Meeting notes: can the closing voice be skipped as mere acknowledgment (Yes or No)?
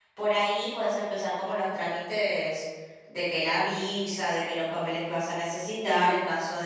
Yes